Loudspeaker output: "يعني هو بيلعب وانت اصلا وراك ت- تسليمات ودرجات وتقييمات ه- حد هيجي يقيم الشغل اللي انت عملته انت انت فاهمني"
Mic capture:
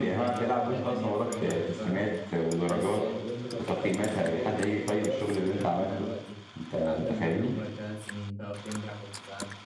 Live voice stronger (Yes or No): No